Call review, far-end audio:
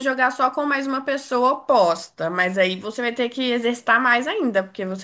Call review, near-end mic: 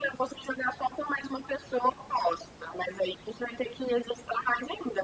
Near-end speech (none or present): none